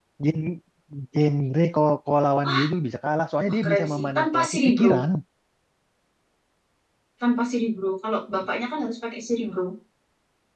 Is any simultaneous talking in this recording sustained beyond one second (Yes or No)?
Yes